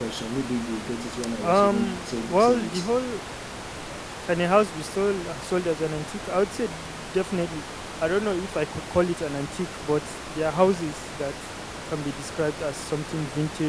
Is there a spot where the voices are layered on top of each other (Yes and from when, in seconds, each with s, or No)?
Yes, from 1.4 s